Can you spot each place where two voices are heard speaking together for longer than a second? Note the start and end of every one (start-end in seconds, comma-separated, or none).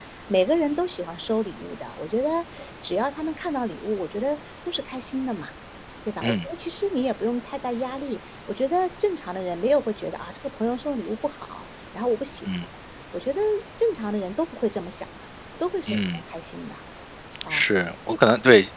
none